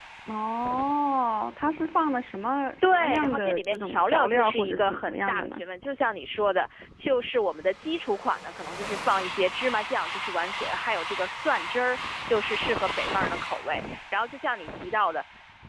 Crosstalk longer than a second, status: present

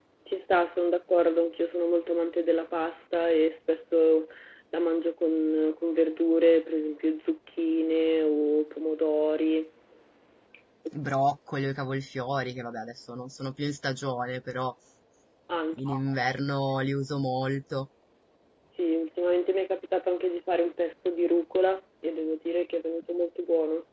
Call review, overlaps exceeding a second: none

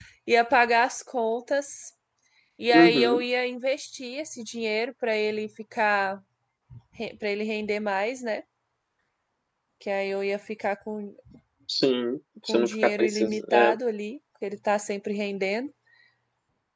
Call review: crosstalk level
present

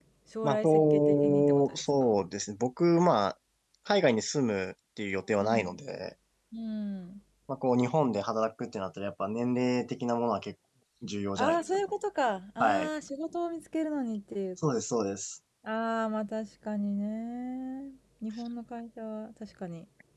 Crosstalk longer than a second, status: present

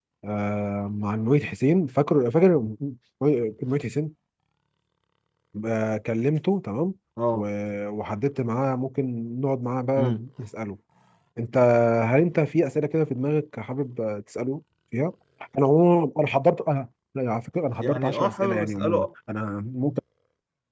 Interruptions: present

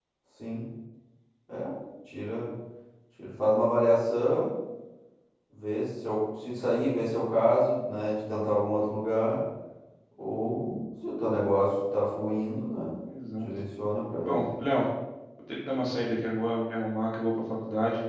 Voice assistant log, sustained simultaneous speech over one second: none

